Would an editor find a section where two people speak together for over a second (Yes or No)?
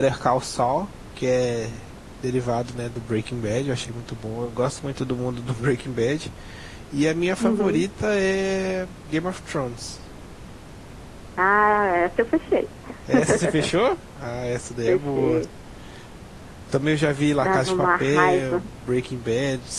Yes